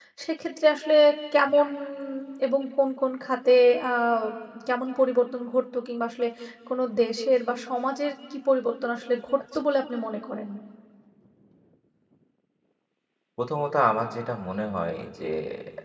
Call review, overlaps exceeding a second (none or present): none